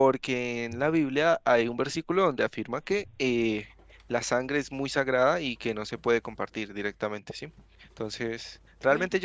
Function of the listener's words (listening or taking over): listening